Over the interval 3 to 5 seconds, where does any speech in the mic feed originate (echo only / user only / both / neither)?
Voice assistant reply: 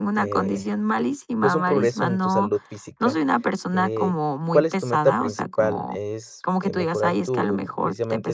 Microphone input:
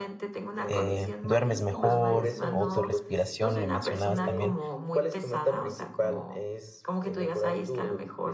both